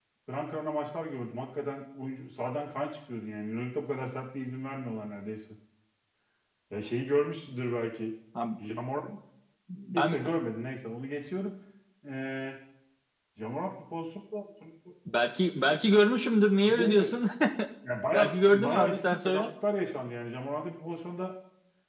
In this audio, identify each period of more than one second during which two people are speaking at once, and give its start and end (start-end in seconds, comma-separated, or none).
18.1-19.5